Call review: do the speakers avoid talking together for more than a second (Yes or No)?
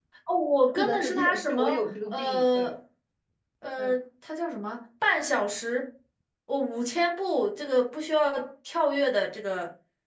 No